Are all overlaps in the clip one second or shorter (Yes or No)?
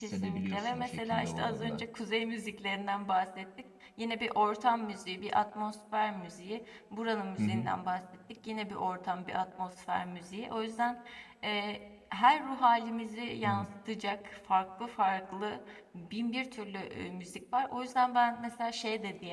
No